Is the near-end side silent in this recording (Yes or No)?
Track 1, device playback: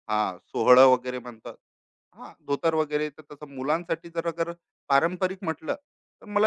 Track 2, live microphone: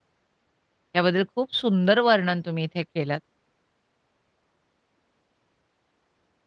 No